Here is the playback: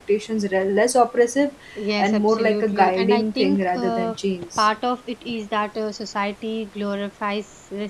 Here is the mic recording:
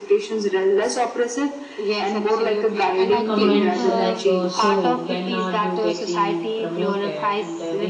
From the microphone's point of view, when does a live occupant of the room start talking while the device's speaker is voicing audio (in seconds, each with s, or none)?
3.2 s